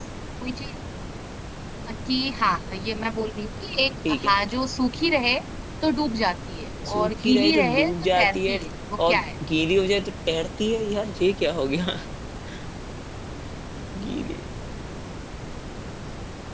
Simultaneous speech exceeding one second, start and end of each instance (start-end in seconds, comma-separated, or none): 6.9-8.6